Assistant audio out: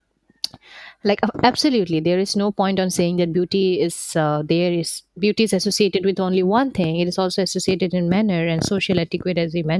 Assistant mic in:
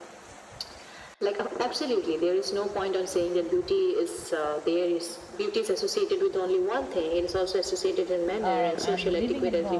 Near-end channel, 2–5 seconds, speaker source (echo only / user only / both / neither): echo only